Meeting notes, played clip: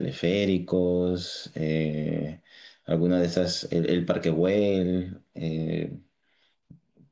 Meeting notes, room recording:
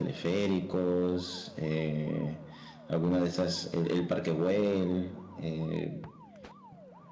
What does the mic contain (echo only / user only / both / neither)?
echo only